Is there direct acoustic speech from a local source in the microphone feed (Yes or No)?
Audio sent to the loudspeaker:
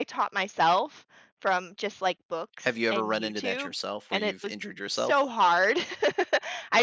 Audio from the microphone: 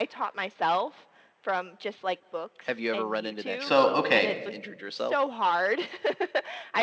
Yes